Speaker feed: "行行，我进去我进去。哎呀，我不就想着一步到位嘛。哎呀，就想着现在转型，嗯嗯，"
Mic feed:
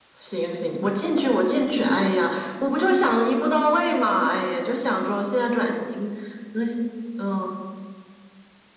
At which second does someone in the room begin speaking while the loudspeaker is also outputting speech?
none

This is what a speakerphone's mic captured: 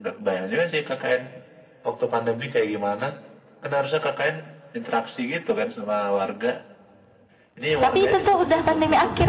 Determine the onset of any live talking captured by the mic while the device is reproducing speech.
8 s

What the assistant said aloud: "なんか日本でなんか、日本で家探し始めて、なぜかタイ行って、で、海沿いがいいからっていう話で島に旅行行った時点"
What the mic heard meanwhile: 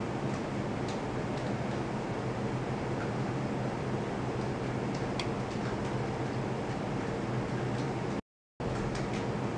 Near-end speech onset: none

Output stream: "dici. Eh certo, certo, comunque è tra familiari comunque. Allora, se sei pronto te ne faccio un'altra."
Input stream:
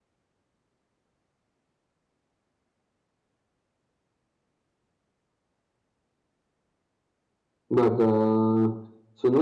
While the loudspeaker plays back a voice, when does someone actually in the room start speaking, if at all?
8 s

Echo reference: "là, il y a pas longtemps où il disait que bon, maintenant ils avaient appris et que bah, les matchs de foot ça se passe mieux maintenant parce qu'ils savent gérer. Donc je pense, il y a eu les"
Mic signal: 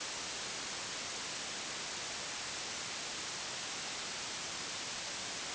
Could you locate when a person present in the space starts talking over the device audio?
none

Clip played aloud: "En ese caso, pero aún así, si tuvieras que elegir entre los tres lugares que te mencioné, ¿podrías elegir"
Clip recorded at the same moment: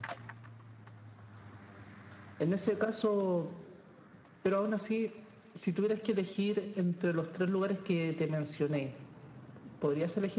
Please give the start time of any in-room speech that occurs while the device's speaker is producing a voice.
none

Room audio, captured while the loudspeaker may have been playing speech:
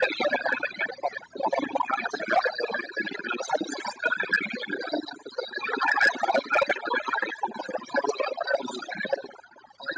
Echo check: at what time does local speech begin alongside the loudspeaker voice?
none

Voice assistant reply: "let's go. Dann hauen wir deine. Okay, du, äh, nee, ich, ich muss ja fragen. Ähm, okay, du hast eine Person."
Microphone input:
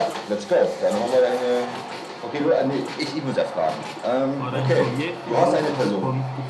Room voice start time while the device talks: 4 s

